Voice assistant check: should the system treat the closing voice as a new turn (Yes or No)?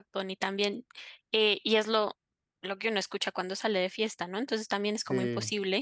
No